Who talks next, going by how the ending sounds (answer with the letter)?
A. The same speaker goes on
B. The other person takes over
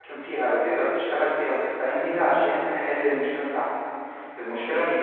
A